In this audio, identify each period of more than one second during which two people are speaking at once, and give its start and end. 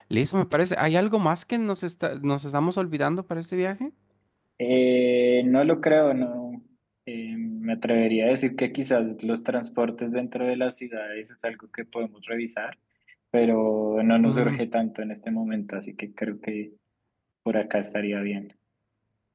none

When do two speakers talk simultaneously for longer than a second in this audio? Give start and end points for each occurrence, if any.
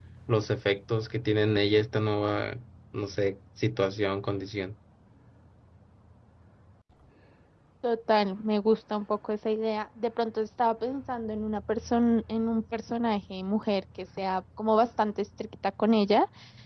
none

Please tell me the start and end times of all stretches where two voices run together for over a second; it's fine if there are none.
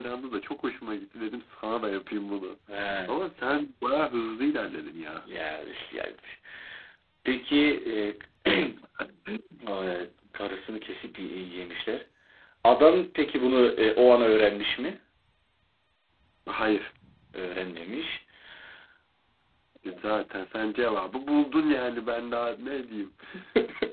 none

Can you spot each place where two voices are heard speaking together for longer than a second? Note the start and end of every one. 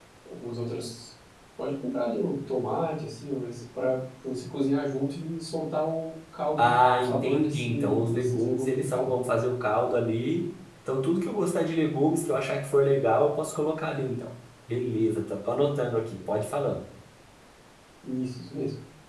6.6-9.2

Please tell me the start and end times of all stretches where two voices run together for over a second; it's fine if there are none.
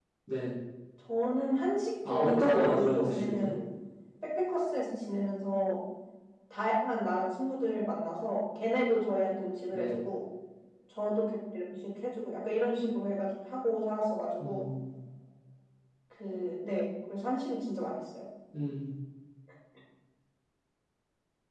2.1-3.5

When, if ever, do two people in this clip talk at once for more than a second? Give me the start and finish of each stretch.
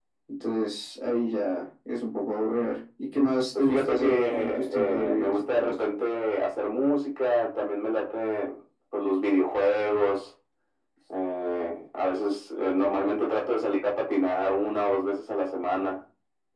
3.5-5.8

